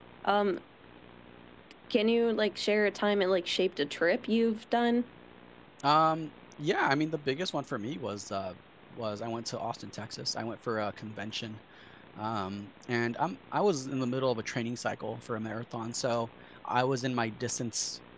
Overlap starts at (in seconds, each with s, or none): none